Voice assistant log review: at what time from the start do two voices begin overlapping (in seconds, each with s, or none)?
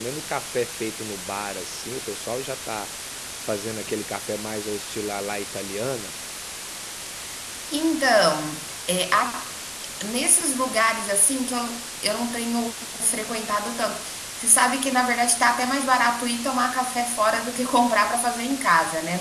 none